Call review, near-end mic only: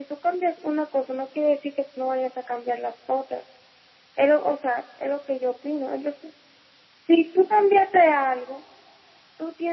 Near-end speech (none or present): none